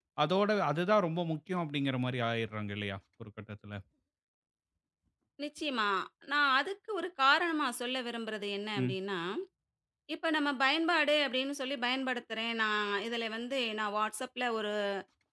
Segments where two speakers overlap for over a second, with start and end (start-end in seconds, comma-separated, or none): none